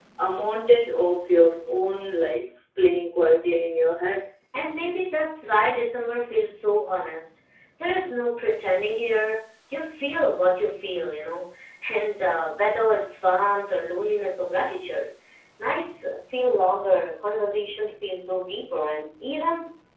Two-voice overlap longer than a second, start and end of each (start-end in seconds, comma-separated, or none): none